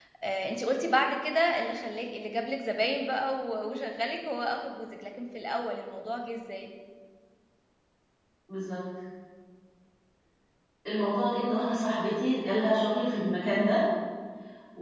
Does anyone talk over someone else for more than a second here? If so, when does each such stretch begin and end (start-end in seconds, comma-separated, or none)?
none